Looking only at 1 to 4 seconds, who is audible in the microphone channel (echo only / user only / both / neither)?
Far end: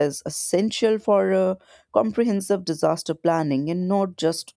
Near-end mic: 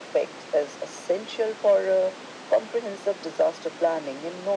echo only